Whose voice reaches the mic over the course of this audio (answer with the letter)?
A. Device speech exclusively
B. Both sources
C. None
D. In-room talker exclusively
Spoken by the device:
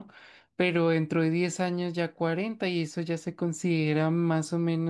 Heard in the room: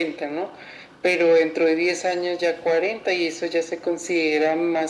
A